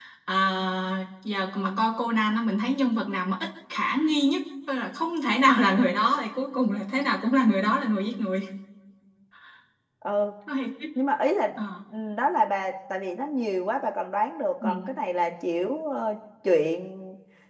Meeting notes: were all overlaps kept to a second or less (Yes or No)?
Yes